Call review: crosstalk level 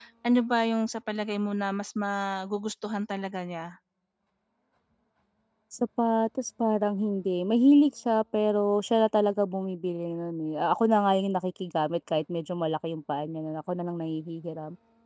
none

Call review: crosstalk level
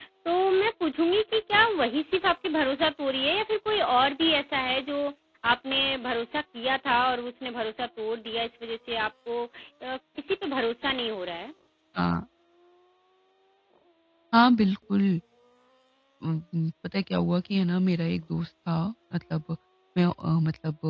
none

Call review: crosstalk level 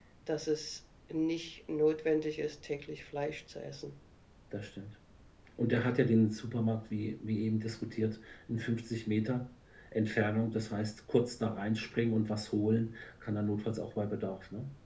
none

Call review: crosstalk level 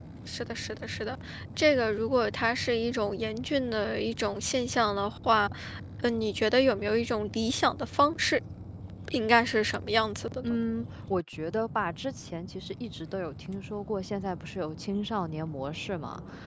none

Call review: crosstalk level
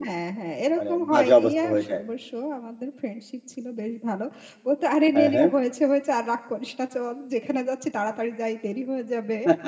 present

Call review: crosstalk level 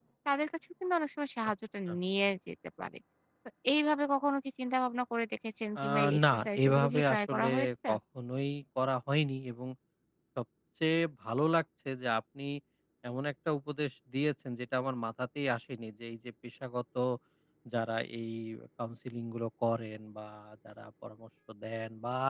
present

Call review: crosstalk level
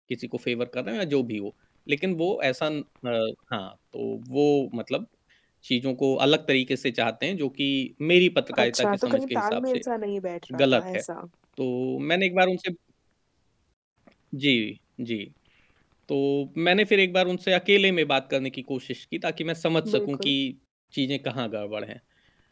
present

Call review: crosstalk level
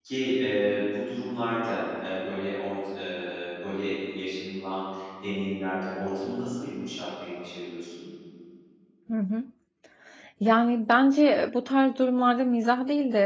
none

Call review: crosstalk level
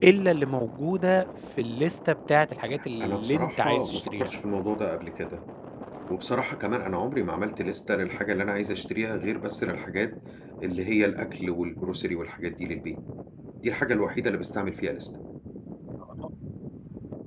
present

